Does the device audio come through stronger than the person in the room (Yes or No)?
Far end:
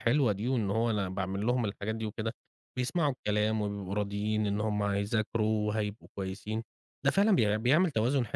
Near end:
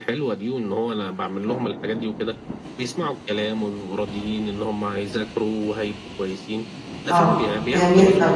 No